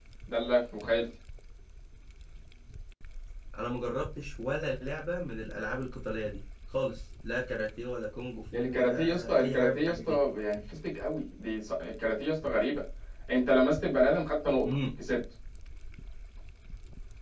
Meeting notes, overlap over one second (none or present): present